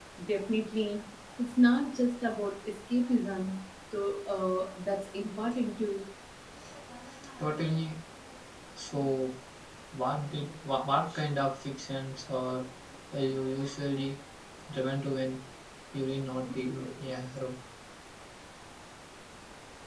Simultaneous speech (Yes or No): No